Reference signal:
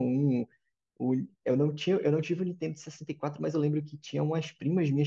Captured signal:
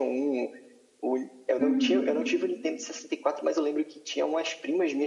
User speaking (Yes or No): Yes